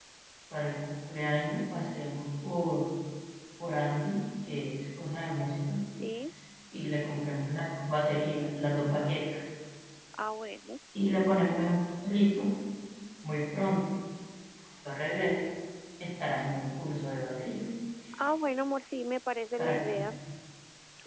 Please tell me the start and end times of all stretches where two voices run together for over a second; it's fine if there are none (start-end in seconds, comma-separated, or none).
none